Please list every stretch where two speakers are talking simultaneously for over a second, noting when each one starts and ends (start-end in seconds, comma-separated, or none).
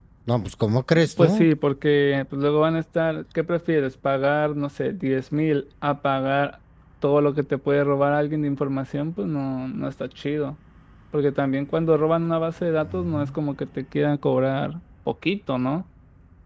none